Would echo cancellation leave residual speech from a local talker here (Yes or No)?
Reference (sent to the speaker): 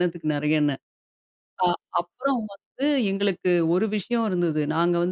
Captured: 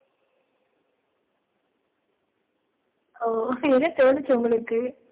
Yes